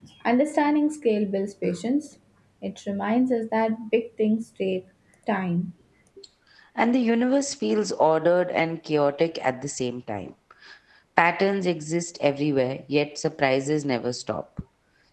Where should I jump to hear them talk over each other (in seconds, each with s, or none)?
none